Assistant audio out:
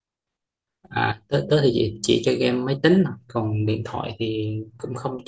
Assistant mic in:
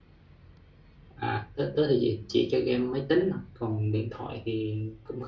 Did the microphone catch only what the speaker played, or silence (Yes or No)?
Yes